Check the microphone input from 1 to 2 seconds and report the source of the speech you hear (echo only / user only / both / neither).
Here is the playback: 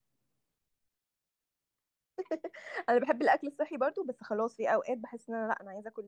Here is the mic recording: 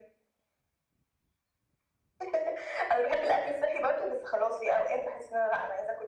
neither